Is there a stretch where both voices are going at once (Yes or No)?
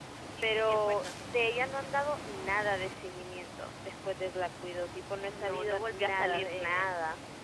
Yes